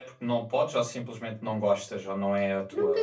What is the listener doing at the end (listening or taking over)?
taking over